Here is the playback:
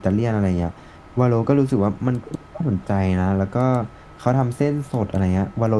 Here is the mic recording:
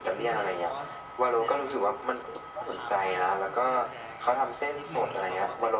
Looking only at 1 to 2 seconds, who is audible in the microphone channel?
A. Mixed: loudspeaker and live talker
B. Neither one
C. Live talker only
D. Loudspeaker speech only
A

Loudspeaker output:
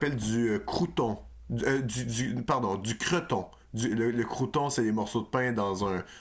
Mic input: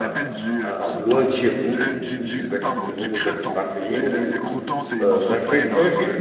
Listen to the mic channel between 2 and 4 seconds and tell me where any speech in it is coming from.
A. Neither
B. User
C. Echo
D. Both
D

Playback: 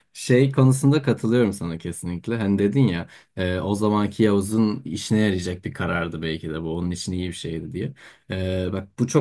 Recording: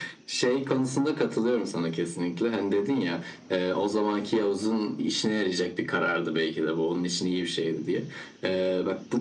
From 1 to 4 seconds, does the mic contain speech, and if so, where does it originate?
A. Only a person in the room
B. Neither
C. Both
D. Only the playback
D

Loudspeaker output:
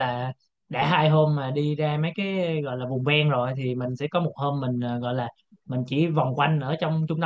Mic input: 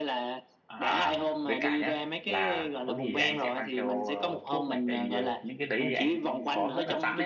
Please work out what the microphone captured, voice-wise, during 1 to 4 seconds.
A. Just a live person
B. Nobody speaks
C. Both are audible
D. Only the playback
C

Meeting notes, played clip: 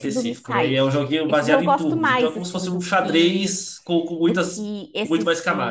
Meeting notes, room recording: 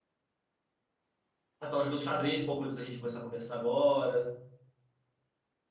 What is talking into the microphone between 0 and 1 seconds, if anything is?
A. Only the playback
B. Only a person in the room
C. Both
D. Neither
D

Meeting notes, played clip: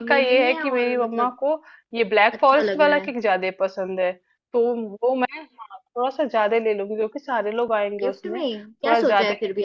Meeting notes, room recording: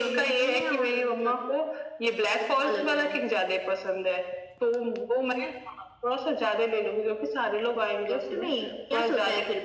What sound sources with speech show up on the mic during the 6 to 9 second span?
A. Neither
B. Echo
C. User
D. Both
B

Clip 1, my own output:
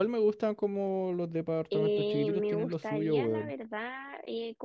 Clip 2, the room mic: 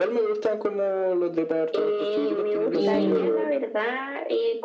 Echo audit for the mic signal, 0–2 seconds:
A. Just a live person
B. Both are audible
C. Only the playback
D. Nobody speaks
C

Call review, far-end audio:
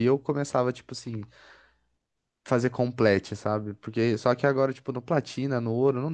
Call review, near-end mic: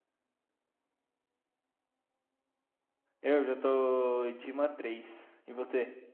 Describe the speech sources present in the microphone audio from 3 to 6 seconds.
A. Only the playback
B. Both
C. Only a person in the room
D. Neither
C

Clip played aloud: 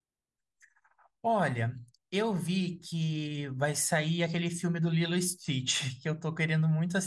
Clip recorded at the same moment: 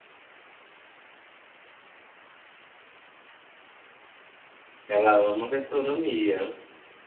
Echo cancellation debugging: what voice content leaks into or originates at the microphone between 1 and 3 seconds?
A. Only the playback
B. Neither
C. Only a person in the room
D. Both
B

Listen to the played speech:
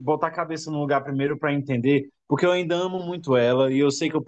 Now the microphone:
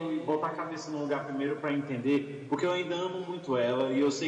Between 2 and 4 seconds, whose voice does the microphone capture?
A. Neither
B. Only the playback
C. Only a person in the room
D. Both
B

